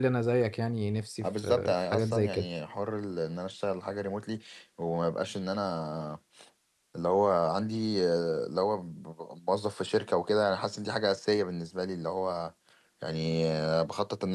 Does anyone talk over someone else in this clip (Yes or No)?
Yes